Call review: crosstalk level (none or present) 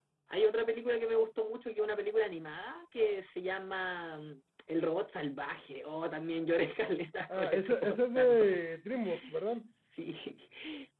present